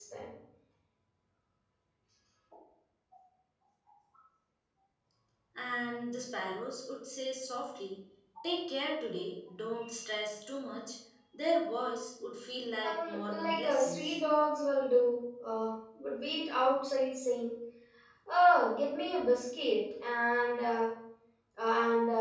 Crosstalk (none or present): present